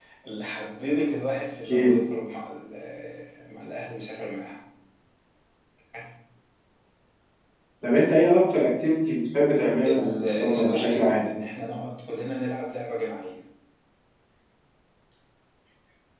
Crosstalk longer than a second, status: present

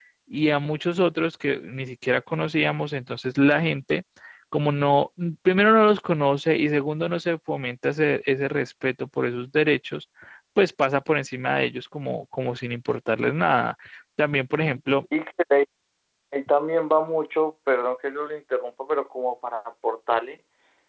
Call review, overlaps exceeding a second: none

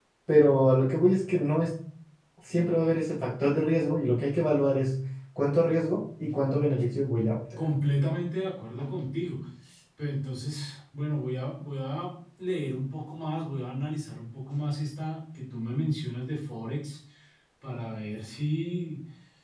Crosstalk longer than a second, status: none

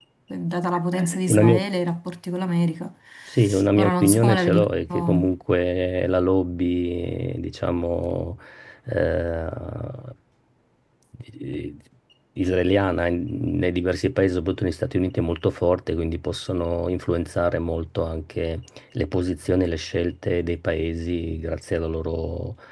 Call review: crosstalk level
present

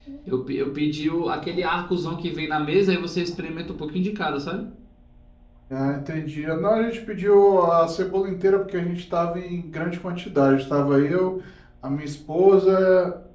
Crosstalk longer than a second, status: none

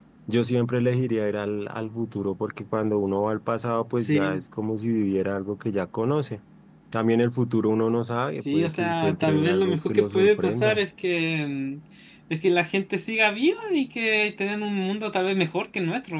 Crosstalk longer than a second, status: present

